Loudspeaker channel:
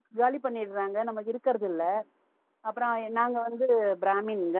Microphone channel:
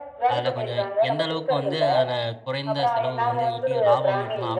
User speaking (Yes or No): Yes